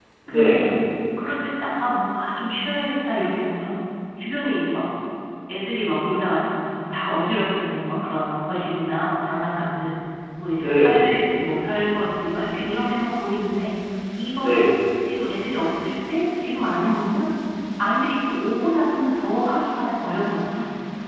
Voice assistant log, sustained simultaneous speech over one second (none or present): none